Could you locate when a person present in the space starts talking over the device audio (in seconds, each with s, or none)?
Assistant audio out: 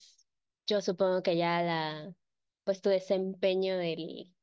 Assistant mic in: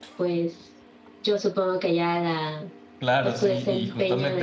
3.0 s